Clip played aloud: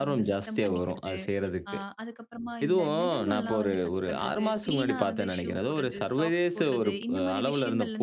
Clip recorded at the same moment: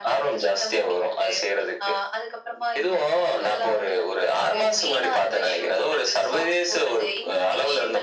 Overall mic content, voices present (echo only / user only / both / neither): echo only